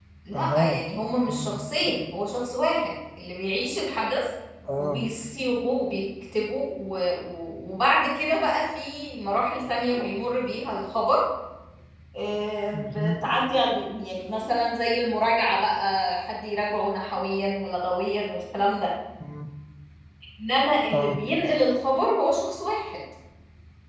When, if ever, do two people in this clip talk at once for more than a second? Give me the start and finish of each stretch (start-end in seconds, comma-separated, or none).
none